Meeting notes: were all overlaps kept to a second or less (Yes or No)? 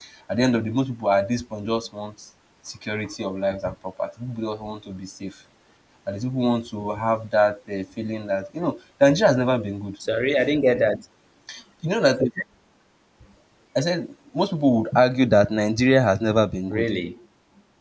Yes